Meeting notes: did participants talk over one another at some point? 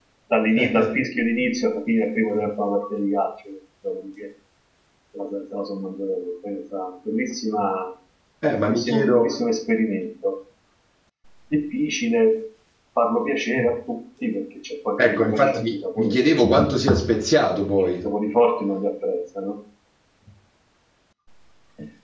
Yes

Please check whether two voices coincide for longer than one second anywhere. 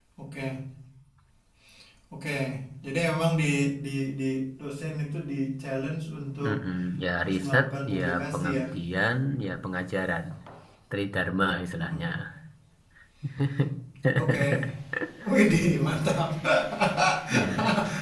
Yes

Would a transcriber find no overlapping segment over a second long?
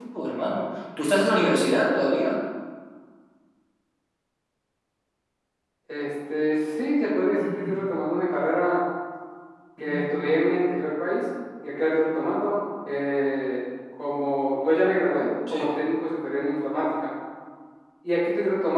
Yes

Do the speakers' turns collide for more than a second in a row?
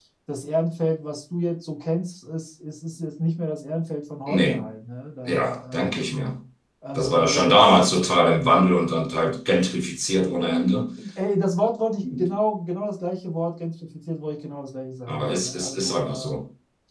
Yes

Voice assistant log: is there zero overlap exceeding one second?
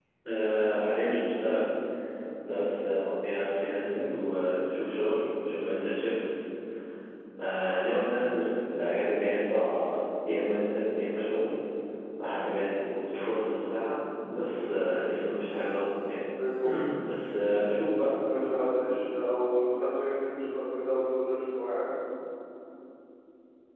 Yes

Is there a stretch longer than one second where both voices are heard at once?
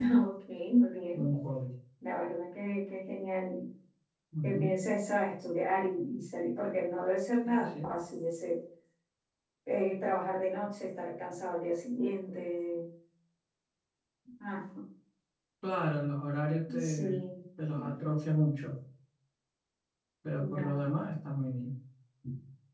No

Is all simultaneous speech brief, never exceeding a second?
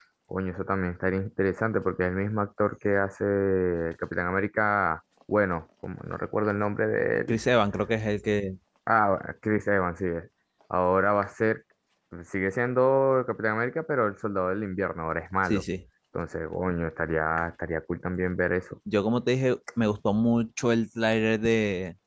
Yes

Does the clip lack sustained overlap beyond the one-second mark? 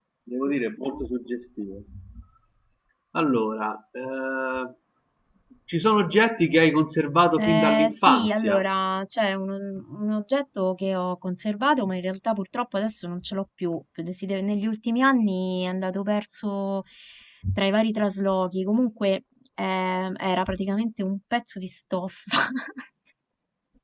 No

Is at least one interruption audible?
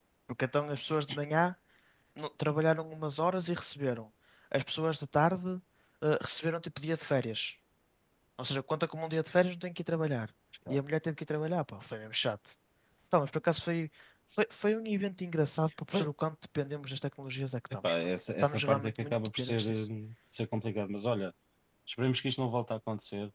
Yes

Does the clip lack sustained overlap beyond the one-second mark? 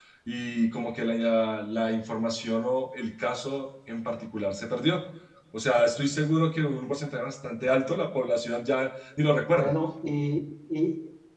Yes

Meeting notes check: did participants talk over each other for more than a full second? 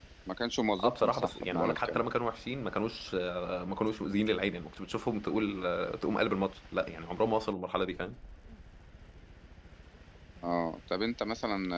Yes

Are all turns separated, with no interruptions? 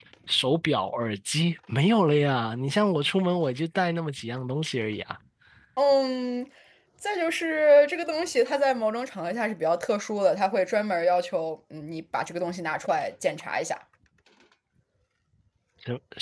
Yes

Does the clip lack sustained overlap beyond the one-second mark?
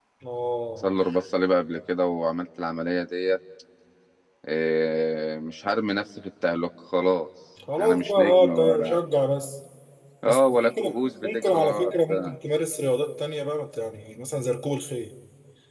No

